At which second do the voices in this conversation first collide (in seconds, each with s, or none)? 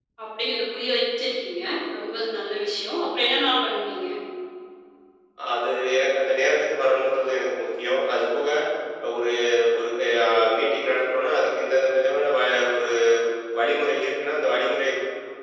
none